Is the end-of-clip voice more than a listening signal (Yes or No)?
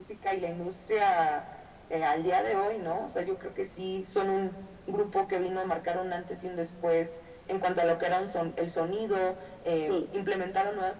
No